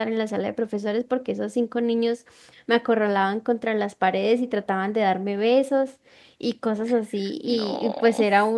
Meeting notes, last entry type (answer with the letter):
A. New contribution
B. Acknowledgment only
B